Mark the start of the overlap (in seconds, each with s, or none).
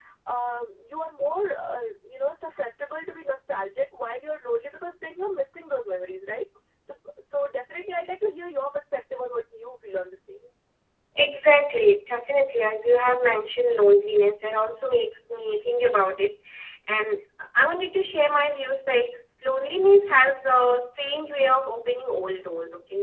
none